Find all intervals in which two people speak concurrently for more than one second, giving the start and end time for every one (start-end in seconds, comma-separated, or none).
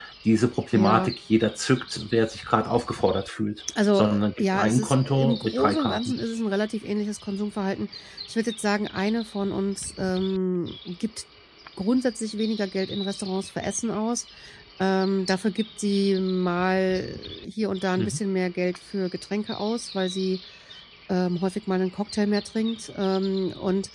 4.0-6.1